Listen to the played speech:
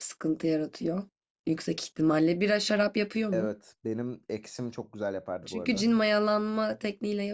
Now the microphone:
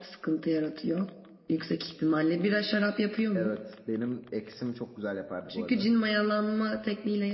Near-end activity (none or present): none